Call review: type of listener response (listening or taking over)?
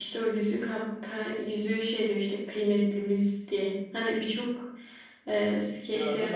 taking over